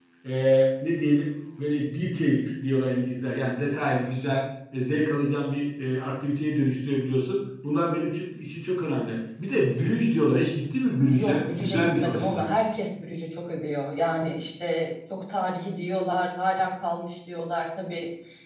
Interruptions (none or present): present